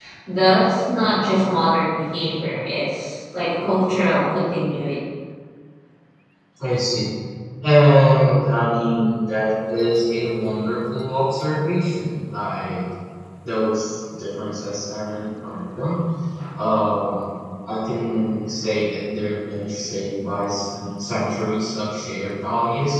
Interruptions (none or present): none